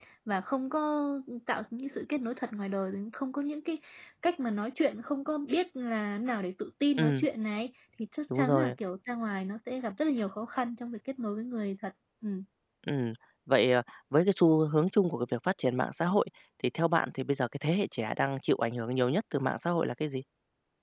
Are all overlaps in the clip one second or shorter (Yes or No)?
Yes